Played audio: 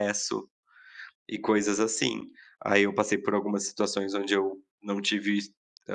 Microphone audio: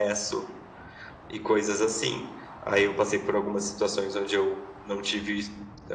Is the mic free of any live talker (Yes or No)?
Yes